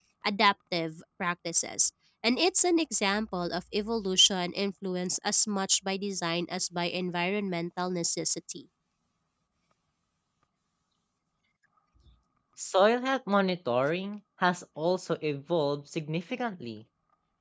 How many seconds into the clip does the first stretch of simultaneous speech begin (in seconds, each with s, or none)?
none